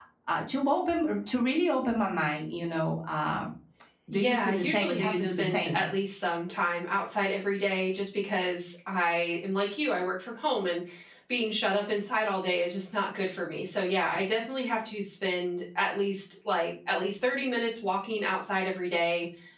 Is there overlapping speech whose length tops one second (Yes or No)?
Yes